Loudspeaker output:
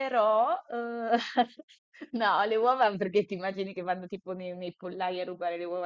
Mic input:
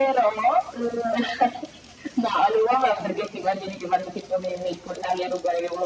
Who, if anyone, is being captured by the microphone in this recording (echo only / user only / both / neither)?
echo only